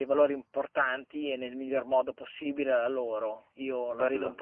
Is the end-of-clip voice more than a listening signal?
Yes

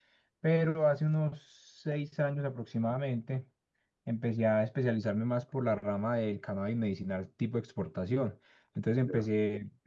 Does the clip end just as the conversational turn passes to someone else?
No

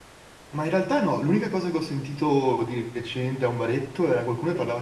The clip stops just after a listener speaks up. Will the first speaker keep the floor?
Yes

